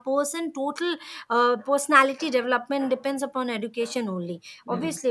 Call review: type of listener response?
listening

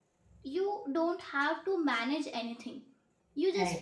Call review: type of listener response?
listening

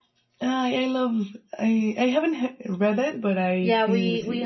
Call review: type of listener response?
taking over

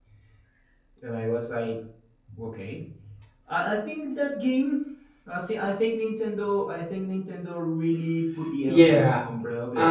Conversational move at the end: taking over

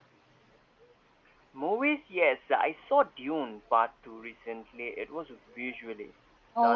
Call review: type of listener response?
taking over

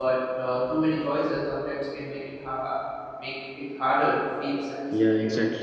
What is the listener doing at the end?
taking over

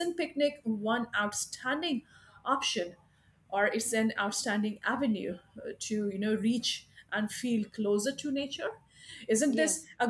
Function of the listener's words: listening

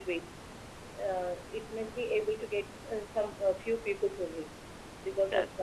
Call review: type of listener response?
listening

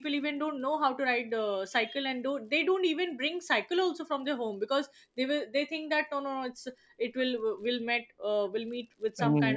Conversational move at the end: listening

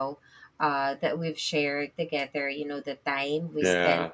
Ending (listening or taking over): listening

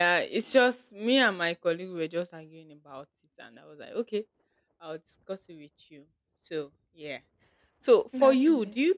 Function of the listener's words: listening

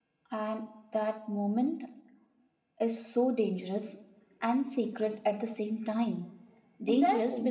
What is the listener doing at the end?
listening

